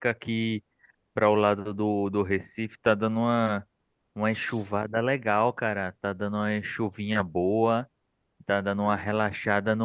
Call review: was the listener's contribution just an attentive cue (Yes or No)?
Yes